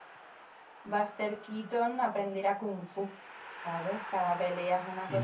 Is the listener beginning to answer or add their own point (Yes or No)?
Yes